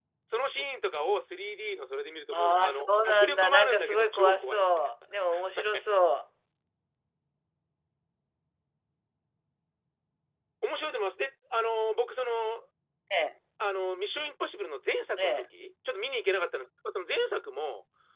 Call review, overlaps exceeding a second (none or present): present